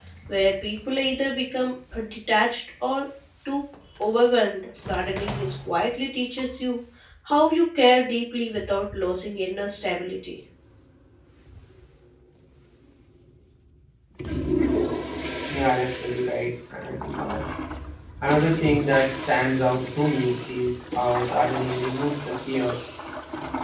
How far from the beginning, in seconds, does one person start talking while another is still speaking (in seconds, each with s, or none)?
none